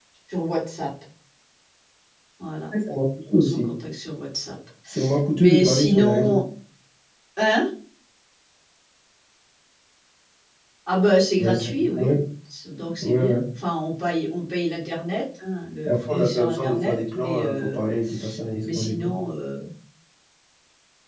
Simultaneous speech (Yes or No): Yes